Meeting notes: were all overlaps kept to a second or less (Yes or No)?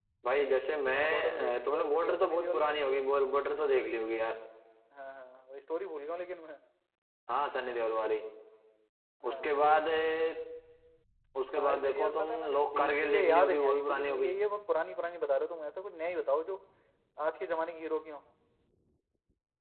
No